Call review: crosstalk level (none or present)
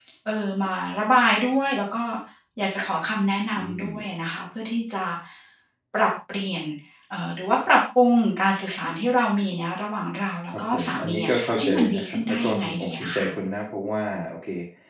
present